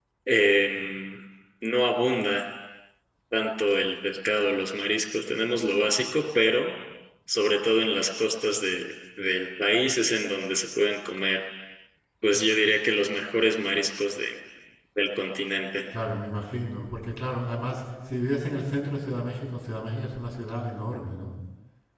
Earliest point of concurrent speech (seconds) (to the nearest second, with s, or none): none